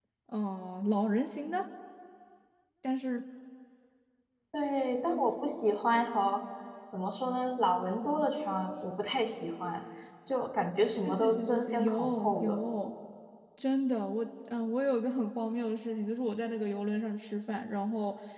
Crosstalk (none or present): present